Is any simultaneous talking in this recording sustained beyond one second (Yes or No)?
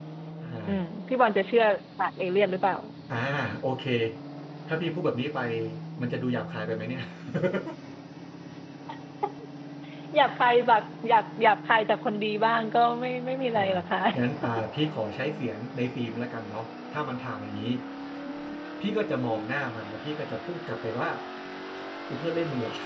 No